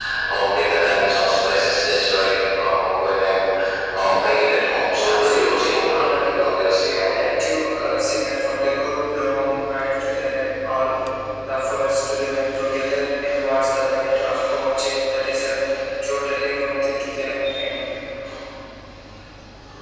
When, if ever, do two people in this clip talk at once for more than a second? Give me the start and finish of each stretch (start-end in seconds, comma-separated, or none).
5.0-6.5